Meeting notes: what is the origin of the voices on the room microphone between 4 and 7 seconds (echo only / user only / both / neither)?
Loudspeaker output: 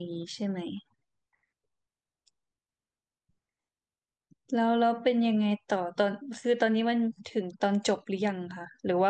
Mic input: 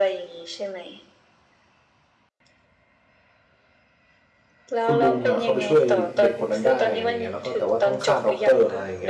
both